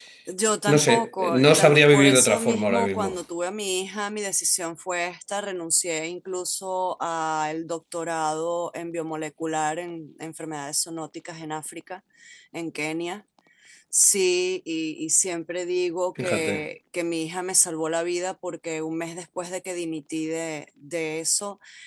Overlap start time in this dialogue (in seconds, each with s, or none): 0.7 s